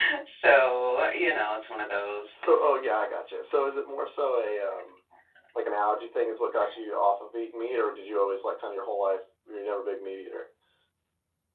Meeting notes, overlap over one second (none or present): none